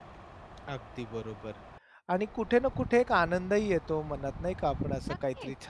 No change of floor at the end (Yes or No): Yes